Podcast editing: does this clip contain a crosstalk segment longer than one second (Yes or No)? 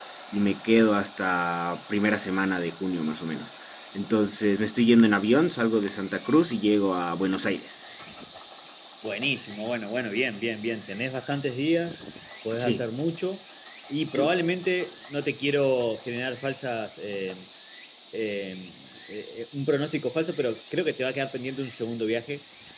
No